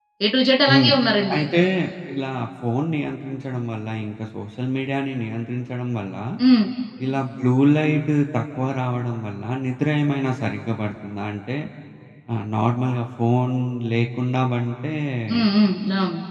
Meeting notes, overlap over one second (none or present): none